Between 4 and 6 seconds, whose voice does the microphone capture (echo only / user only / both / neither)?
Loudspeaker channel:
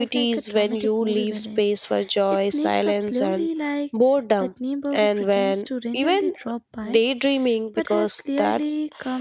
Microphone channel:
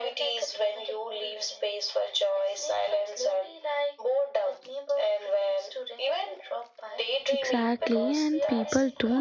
echo only